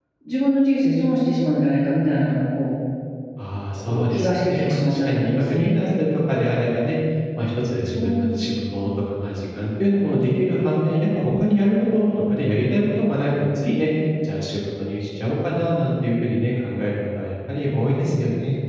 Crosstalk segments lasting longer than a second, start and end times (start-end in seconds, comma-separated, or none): 3.9-5.7